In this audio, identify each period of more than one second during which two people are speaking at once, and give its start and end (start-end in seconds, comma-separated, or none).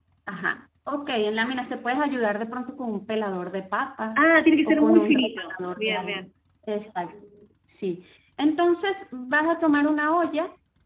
4.7-6.2